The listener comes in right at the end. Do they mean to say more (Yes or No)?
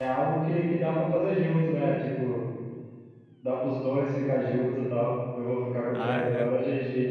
No